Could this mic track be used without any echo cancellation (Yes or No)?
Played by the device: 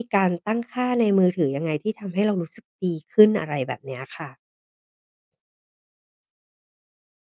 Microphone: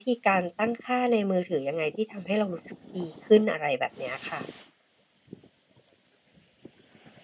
No